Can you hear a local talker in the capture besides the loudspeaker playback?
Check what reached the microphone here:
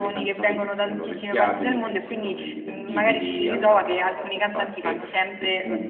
No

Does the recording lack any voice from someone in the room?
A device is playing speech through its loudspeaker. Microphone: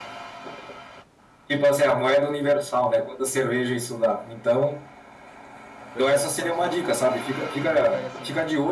No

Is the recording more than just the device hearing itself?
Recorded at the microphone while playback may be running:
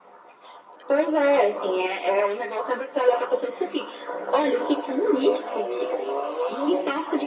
No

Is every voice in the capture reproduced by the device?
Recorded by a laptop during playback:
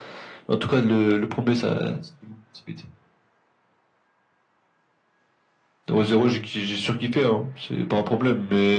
Yes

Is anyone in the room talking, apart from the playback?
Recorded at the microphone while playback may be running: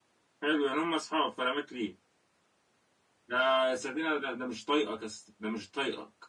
Yes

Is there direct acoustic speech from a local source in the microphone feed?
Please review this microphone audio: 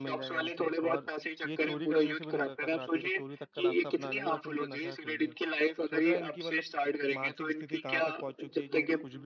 Yes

